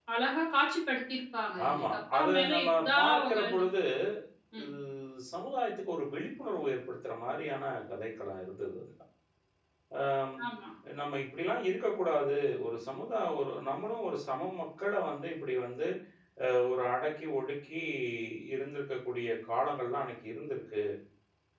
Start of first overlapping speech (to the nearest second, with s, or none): 2 s